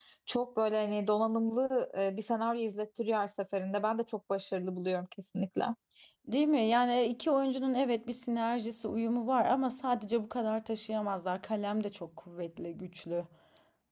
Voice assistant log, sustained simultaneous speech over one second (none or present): none